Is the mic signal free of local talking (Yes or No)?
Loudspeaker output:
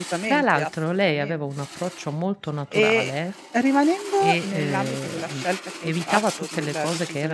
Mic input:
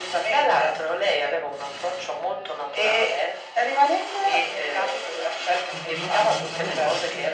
No